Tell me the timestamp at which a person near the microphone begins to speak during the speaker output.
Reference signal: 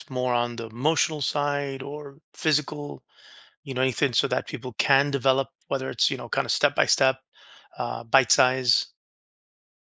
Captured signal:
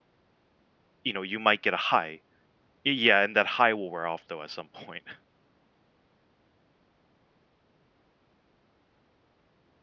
1.0 s

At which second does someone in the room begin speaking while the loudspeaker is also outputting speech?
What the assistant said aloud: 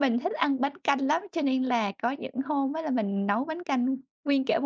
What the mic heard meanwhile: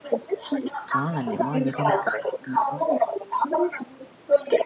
0.9 s

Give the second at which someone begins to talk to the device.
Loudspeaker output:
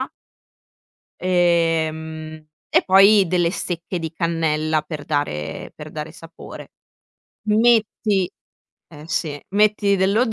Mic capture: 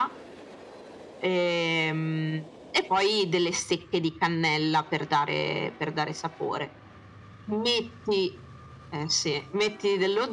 none

